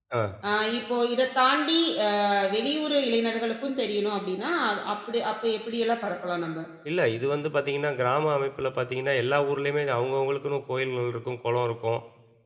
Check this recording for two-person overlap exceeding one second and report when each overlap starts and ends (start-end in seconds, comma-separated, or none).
none